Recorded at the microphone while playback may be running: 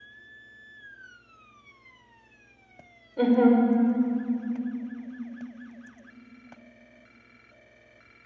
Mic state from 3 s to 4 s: user only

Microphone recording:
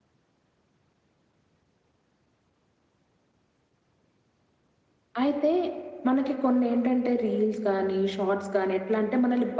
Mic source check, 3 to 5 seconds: neither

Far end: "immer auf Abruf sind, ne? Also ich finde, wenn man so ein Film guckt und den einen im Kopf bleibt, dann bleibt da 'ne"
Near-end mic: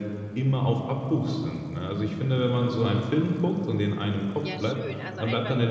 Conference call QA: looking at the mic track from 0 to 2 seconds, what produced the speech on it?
echo only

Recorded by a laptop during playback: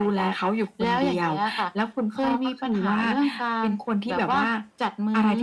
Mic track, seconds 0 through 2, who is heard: echo only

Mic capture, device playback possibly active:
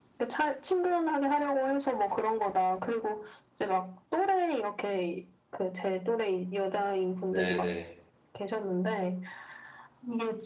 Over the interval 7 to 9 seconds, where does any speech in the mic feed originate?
both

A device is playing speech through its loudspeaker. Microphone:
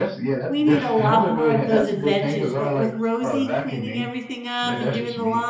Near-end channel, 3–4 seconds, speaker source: both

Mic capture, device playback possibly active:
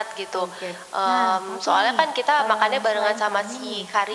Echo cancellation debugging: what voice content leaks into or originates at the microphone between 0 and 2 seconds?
both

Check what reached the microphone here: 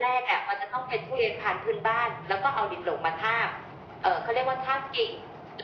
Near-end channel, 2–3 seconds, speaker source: echo only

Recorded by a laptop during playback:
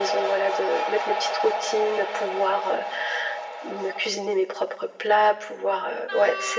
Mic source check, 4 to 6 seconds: echo only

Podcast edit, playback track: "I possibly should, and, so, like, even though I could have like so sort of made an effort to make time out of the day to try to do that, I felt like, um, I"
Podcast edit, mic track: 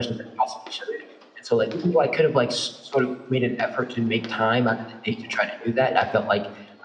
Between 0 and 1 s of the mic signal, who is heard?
echo only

